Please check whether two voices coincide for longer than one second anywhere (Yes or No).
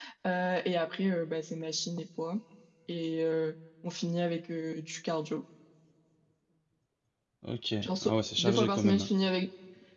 Yes